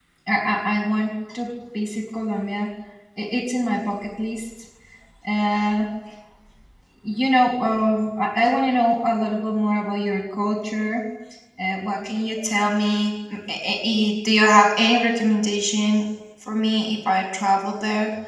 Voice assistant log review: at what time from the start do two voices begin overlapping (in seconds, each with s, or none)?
none